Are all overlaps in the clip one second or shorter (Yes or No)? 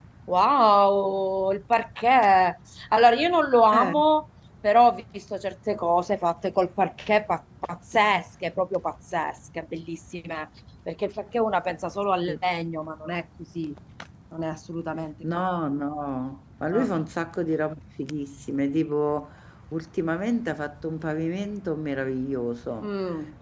Yes